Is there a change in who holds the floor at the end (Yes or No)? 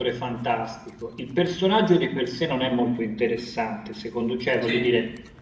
No